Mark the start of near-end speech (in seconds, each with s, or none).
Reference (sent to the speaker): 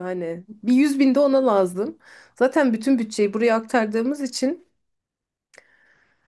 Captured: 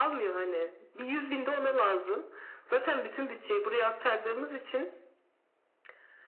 none